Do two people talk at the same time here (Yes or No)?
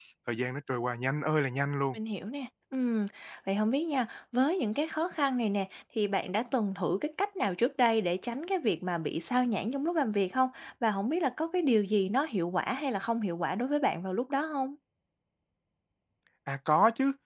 No